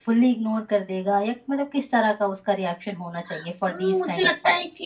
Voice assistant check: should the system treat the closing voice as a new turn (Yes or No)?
Yes